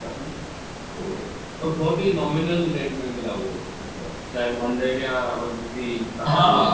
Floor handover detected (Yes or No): Yes